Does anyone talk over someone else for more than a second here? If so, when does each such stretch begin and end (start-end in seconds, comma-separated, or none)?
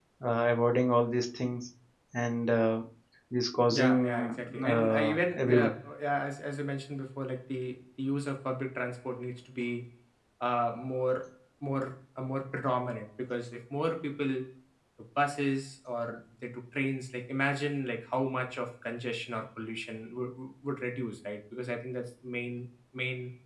3.7-5.7